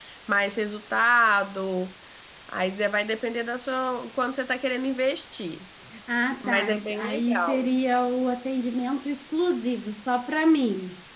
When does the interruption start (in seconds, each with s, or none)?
6.4 s